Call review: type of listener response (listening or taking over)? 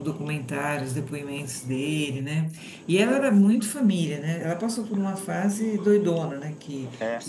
listening